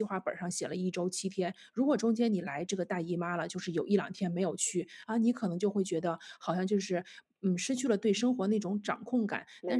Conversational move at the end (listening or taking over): listening